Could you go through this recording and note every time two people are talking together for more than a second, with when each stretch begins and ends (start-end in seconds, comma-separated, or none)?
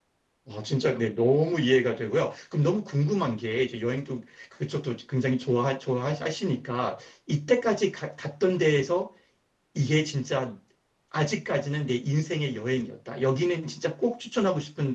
none